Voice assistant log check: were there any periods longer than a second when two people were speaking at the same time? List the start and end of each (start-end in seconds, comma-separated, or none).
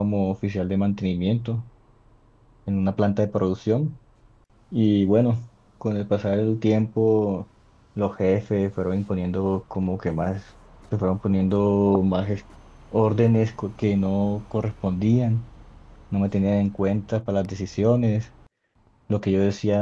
none